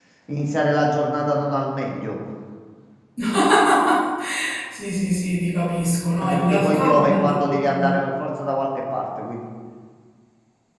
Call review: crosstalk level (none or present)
present